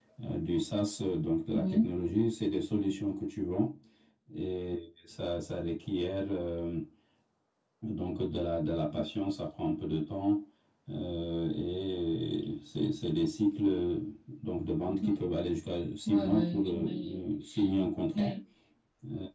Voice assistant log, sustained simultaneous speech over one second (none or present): present